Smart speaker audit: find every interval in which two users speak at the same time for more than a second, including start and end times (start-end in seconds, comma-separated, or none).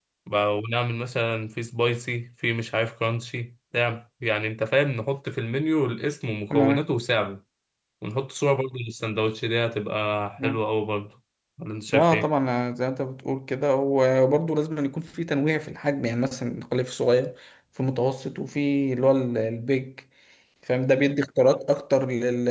none